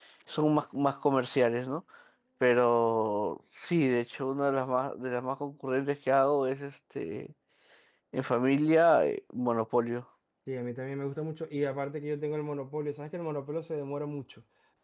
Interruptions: none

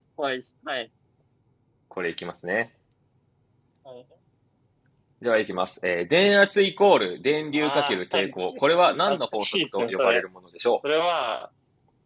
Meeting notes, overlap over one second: present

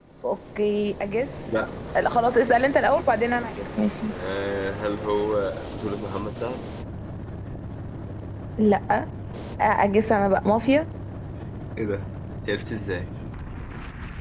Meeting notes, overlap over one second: none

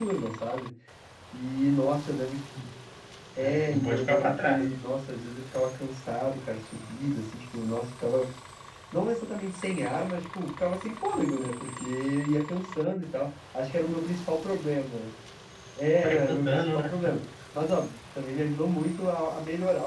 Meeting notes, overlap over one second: present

